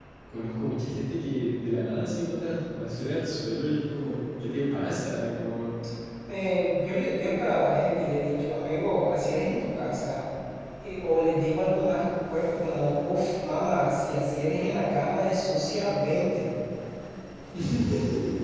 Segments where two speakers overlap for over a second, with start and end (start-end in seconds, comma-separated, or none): none